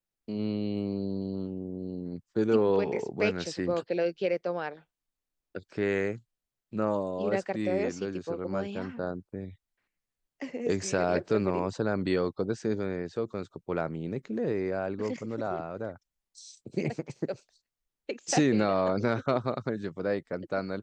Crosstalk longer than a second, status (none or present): present